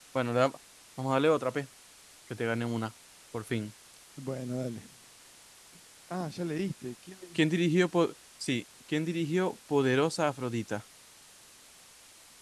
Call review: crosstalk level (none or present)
none